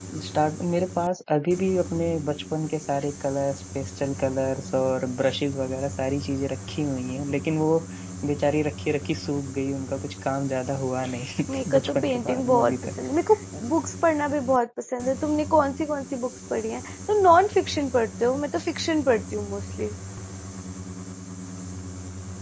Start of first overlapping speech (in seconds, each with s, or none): 11.5 s